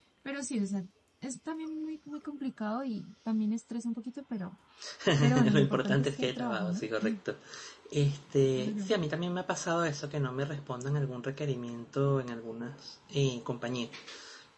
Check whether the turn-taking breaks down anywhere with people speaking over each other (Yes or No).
Yes